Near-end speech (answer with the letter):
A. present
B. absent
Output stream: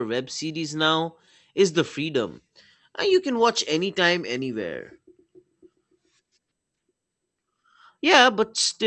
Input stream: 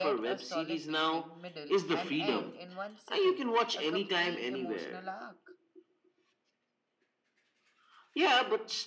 A